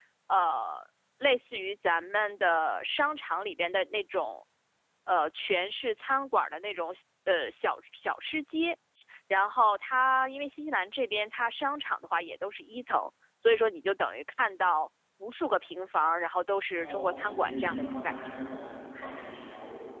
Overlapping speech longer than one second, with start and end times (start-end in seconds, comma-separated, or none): 16.8-18.3